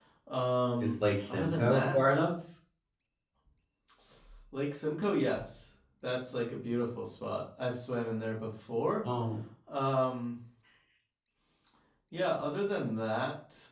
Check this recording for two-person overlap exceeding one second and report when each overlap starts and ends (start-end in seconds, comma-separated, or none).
0.8-2.2